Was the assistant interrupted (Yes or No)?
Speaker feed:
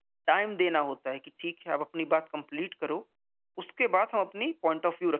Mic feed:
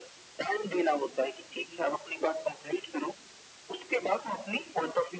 No